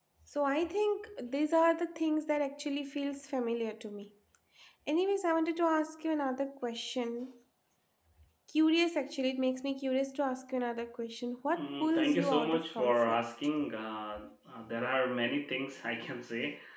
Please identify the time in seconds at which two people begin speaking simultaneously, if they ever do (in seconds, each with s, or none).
11.5 s